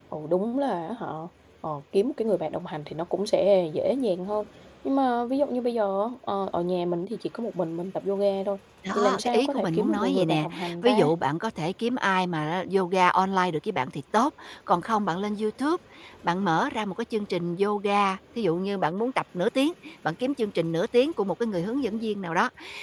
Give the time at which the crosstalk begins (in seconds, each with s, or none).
8.8 s